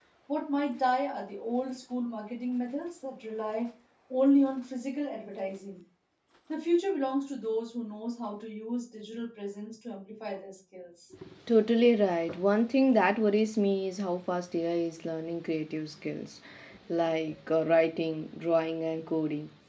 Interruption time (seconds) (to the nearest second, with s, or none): none